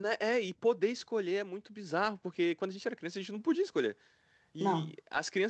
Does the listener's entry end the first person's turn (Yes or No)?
No